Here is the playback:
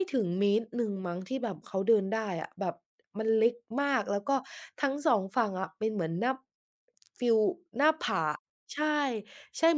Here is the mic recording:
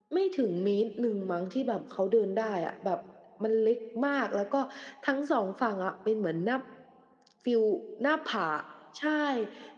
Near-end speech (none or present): none